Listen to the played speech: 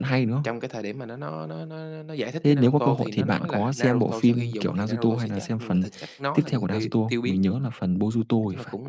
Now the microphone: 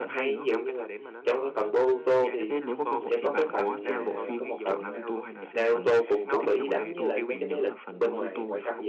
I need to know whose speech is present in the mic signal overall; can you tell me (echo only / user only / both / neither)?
both